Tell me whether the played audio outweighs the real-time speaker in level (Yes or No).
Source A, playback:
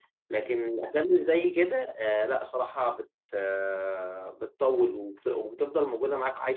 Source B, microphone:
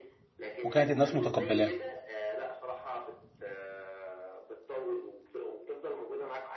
No